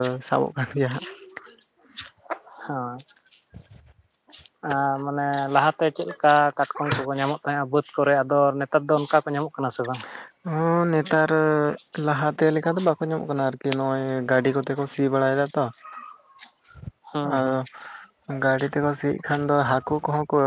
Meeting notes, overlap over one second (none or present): none